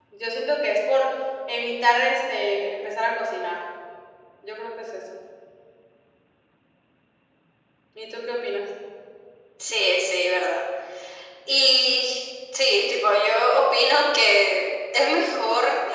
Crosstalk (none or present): none